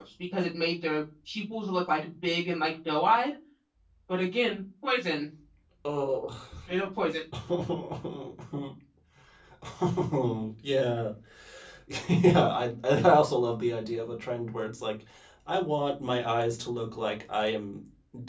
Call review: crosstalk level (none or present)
none